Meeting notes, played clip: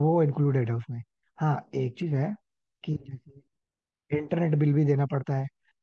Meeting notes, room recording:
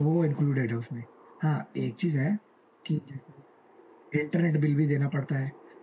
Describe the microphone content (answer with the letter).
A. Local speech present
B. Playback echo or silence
B